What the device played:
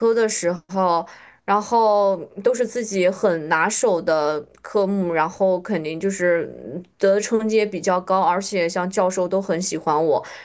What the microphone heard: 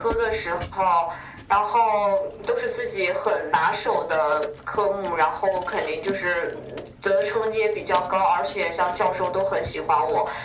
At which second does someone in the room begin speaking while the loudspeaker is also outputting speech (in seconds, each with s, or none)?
none